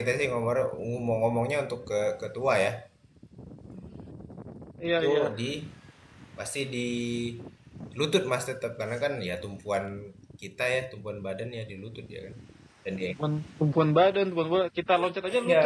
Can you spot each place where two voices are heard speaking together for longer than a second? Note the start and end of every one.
none

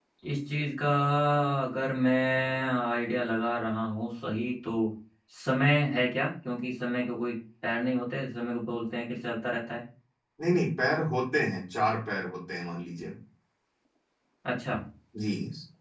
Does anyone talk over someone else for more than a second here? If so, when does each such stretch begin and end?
none

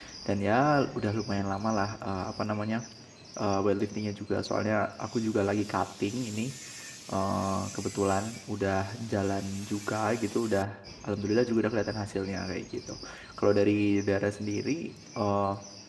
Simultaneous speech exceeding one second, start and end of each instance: none

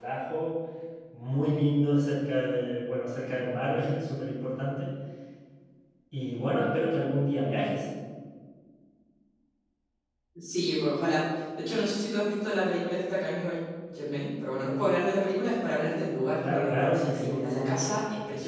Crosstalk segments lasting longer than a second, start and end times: 16.4-17.9

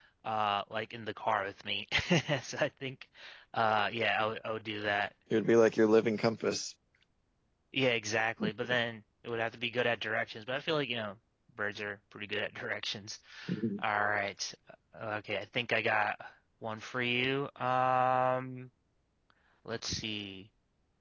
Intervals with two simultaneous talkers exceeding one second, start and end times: none

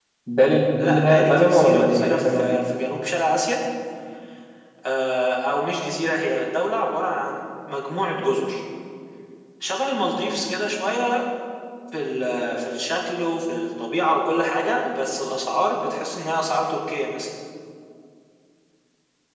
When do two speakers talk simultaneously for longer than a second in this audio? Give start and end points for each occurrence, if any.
0.8-2.5

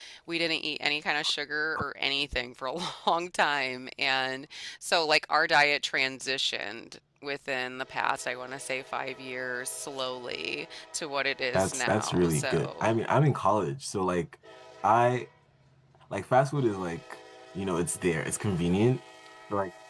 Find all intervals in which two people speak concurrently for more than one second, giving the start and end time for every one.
11.5-12.9

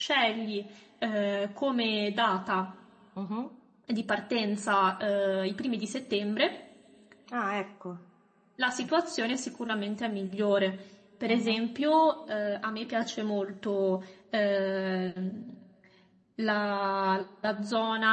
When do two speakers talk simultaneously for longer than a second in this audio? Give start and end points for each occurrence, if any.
none

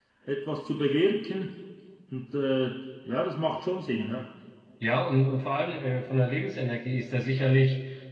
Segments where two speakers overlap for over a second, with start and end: none

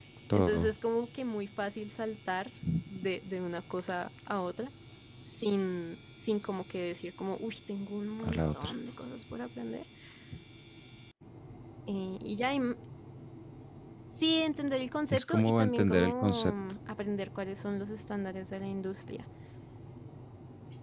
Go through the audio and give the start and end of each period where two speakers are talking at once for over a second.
15.1-16.5

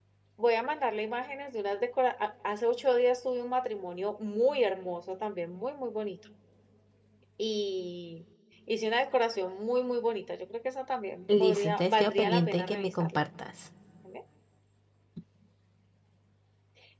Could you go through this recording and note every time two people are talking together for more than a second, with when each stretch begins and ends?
11.4-13.1

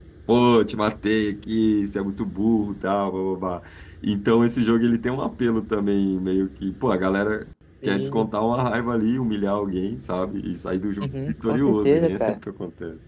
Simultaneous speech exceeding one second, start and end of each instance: 11.0-12.4

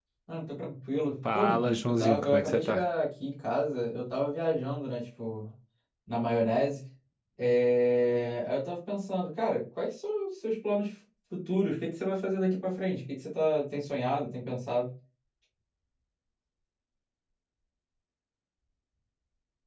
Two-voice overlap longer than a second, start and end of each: 1.2-2.9

